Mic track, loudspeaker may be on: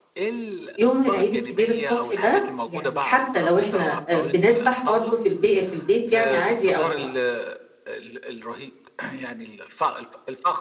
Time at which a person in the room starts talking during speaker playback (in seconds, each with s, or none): 0.8 s